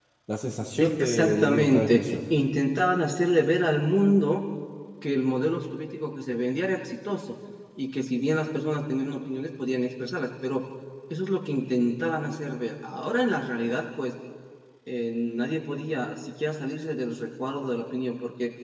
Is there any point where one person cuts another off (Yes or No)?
Yes